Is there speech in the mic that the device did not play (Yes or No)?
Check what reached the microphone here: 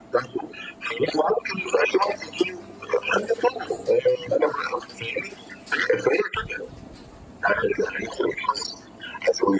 No